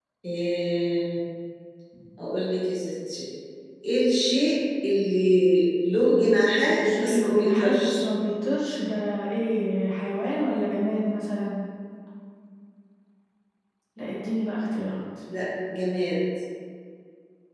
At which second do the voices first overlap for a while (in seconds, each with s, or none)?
6.6 s